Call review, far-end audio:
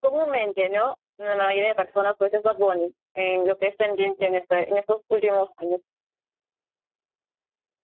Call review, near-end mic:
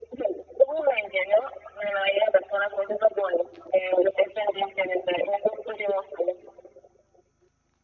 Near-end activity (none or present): none